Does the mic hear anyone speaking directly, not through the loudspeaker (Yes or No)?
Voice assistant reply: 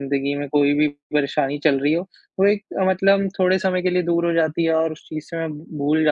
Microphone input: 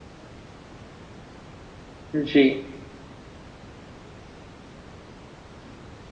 Yes